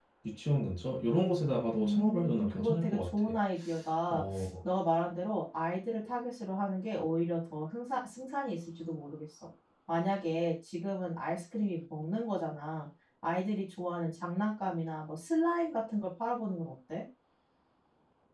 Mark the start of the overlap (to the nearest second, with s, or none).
2 s